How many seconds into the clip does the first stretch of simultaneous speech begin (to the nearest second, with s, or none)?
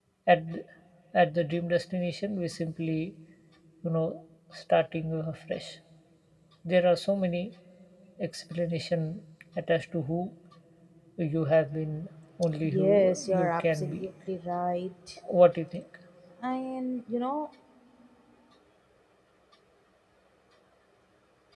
13 s